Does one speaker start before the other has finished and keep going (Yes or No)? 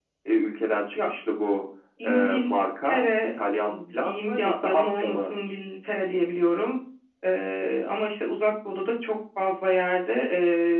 Yes